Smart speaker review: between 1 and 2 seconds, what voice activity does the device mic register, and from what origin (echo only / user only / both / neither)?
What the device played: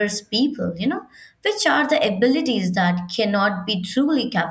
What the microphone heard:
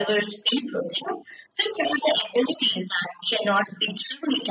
echo only